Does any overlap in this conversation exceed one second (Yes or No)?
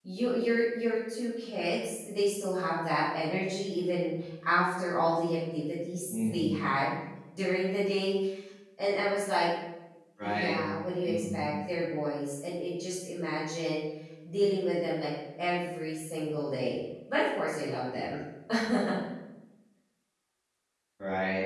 No